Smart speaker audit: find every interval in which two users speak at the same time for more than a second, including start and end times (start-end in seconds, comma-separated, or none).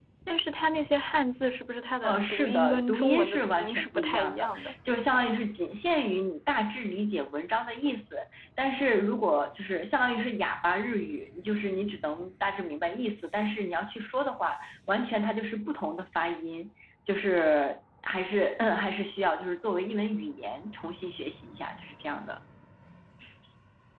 2.0-4.7